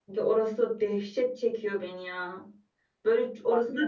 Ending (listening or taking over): listening